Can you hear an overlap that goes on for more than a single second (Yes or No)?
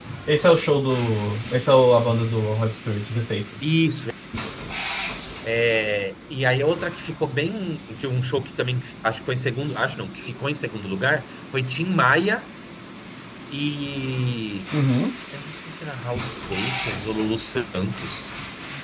No